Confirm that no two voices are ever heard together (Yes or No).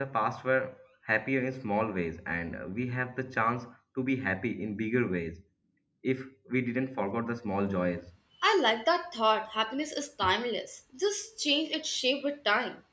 Yes